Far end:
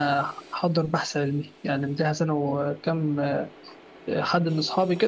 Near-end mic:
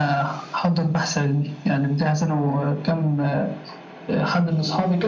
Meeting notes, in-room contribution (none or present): none